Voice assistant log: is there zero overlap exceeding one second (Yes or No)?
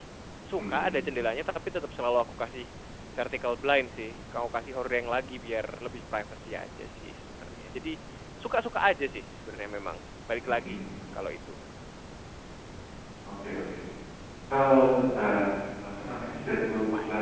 Yes